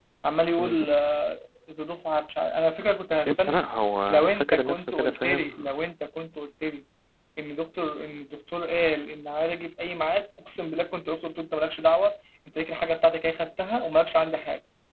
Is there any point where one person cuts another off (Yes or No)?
Yes